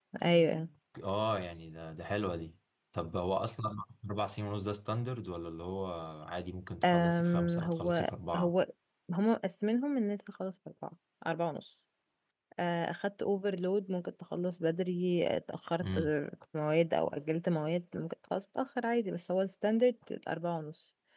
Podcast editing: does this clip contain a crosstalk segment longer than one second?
Yes, from 6.8 s

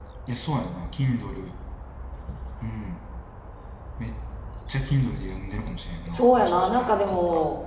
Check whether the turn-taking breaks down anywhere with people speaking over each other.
Yes, from 6.1 s

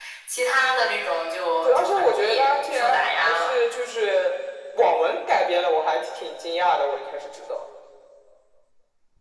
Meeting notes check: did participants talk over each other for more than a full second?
Yes, from 1.6 s

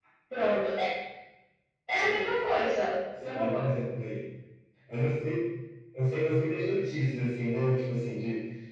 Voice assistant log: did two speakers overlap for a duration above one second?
No

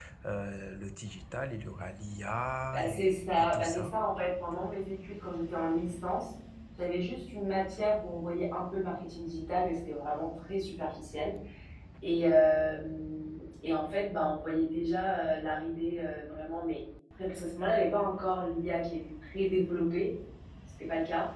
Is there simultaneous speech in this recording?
Yes, from 2.7 s

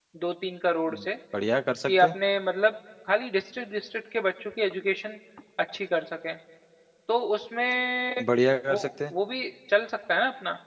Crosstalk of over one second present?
No

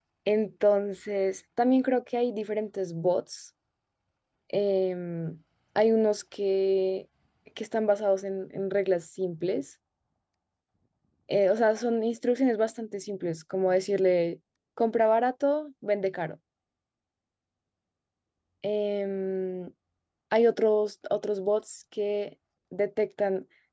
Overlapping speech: No

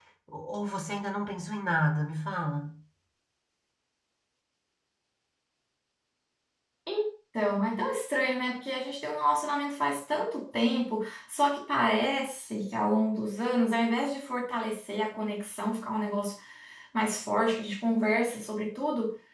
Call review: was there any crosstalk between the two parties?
No

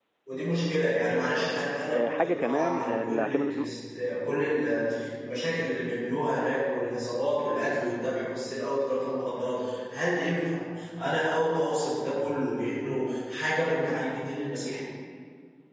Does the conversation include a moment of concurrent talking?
Yes, from 1.9 s

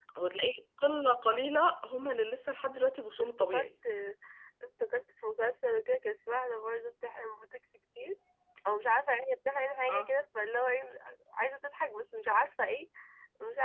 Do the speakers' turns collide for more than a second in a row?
No

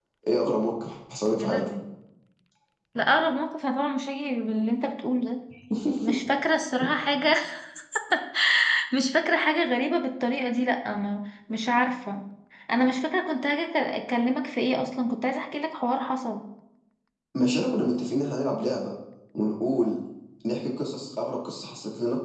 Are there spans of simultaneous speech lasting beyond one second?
No

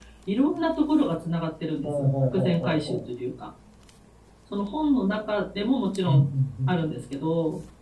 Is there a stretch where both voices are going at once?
Yes, from 1.8 s

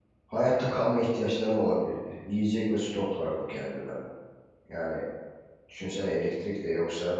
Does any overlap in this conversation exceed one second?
No

